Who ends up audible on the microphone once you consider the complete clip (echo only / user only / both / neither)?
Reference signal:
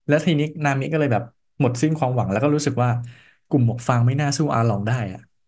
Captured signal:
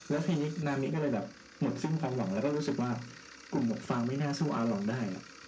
echo only